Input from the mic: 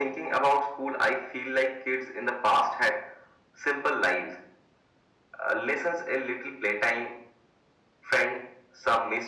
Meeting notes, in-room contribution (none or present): none